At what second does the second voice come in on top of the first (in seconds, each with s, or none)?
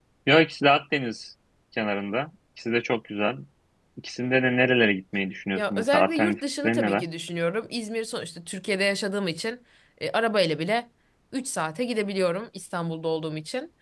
5.5 s